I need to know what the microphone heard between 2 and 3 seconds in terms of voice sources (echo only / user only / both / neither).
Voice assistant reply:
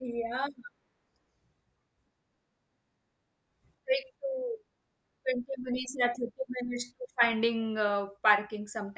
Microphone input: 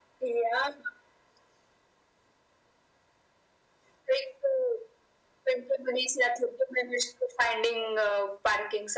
neither